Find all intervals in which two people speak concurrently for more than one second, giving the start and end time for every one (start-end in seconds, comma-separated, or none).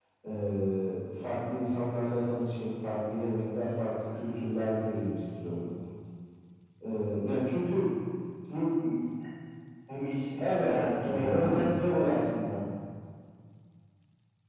10.4-11.7